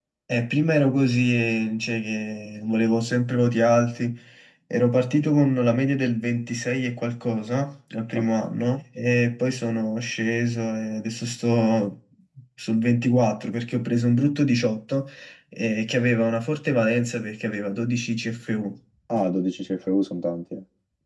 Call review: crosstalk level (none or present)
none